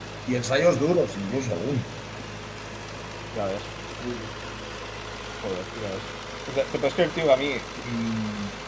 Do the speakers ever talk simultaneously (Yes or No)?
No